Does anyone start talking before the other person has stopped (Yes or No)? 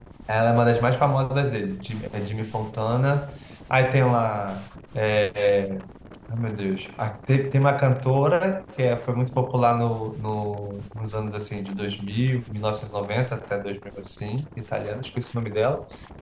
No